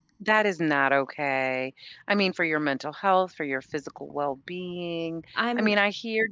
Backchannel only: Yes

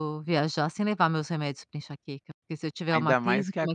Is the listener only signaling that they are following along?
No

